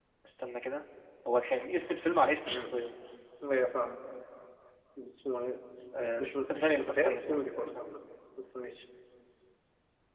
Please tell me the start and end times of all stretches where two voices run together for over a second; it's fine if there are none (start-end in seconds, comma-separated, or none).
6.2-7.8